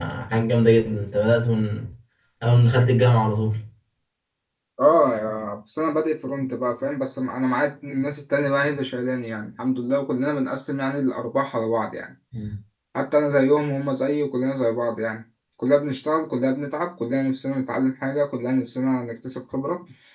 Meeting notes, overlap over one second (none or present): none